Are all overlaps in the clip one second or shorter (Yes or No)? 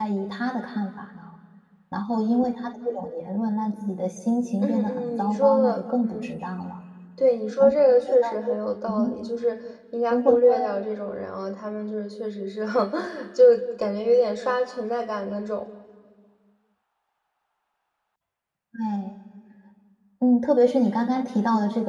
No